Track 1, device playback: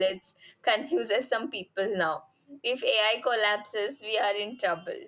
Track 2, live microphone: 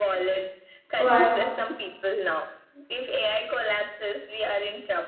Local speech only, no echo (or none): but